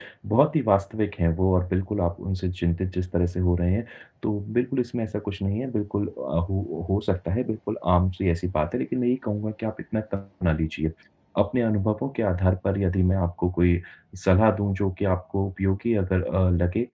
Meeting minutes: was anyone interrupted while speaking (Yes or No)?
No